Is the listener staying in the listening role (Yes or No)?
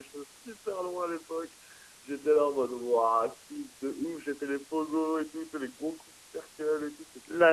No